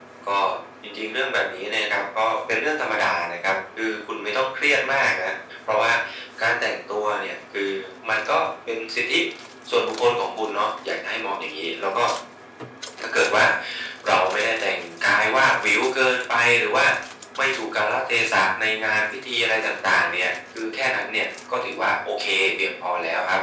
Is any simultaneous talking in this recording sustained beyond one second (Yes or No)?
No